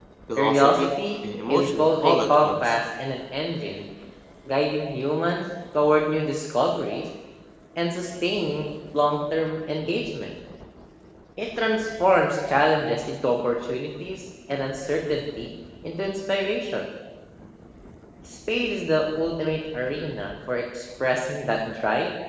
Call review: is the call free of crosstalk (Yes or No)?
No